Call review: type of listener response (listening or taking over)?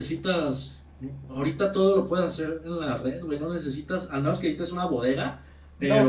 taking over